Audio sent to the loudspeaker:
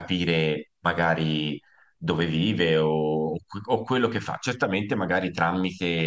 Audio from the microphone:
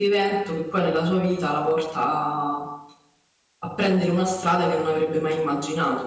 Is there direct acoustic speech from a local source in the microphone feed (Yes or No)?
Yes